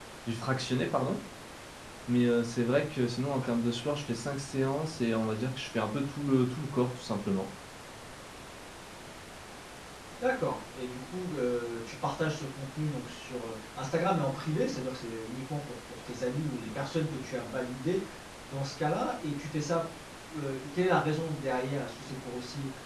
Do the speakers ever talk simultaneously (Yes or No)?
No